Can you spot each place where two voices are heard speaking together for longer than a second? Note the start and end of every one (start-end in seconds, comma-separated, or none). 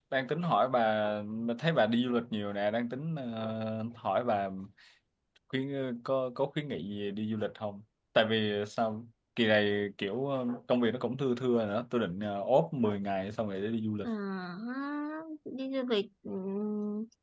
none